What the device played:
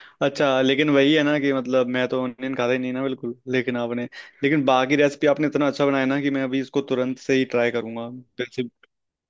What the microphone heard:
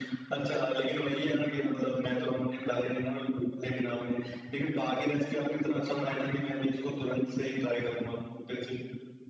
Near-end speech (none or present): none